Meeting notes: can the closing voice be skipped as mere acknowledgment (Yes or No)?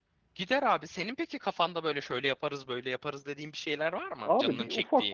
No